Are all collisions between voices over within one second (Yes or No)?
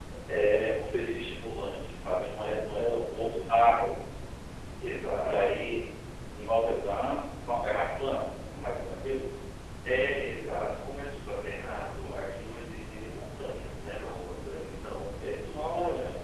No